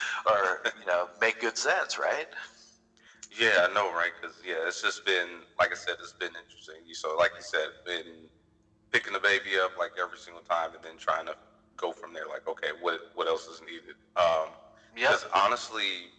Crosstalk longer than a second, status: none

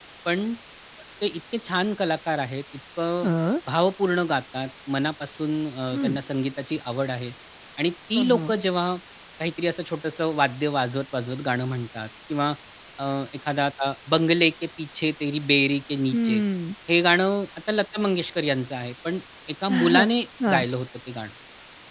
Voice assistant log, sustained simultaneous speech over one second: none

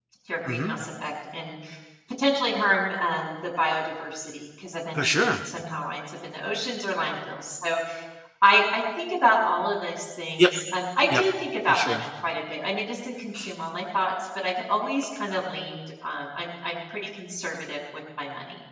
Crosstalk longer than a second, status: none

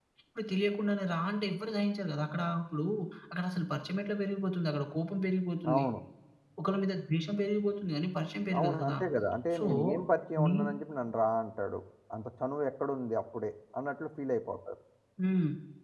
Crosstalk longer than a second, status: none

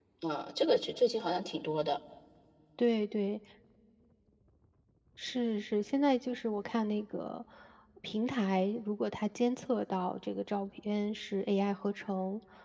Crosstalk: none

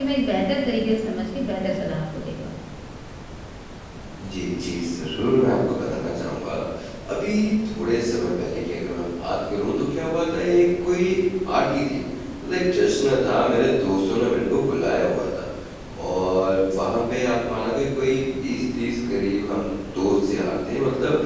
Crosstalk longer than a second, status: none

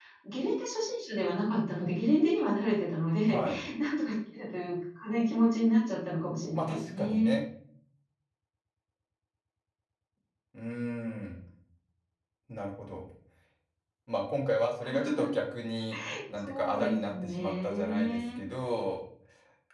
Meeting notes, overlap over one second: present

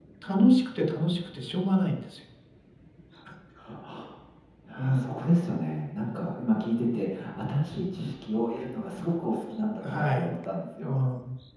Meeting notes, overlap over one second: none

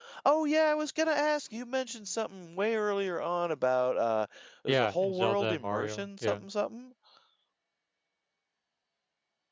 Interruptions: present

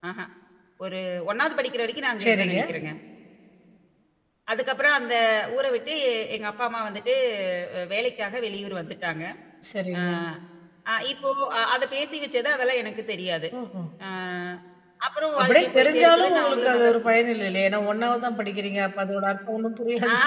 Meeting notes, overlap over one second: present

